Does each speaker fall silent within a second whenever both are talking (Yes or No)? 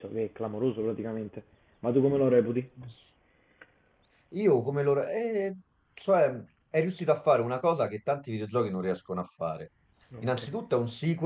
Yes